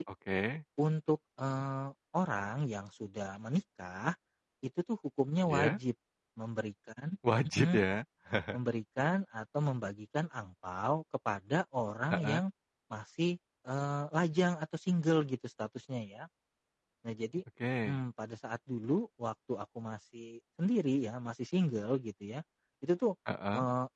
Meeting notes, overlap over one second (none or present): none